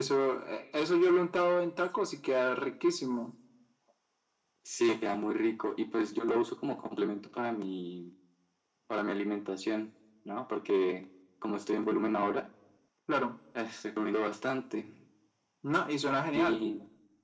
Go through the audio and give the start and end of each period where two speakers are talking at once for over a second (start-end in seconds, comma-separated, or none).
none